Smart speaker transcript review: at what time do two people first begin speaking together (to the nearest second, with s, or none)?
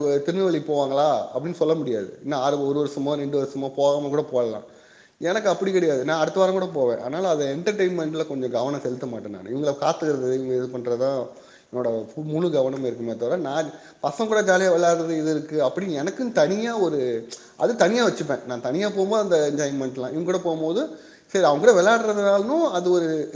none